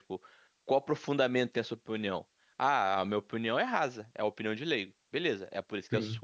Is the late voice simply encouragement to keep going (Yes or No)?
Yes